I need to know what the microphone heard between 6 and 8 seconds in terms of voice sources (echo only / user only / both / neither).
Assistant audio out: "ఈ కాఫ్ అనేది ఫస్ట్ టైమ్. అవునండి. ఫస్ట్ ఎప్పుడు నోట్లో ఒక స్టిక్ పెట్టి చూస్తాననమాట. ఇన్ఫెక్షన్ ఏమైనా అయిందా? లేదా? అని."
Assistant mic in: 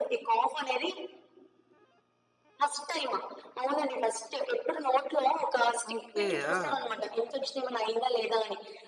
both